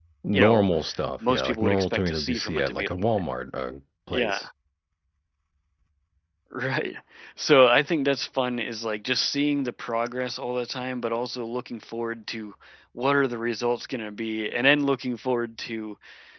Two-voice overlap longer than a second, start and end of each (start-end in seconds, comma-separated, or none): 1.3-3.2